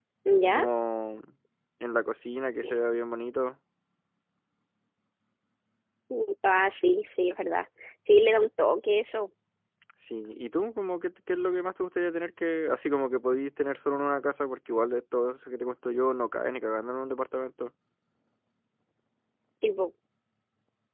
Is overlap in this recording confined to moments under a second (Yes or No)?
Yes